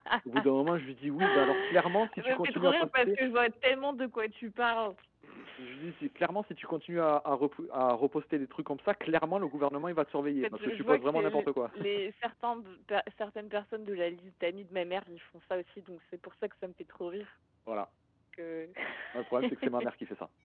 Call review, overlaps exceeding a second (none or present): present